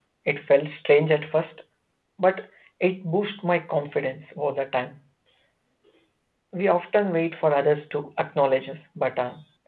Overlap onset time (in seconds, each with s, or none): none